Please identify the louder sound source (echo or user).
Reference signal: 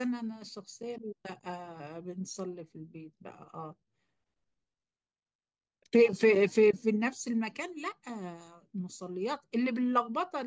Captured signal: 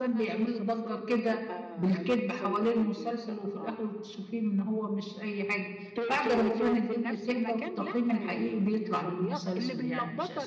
user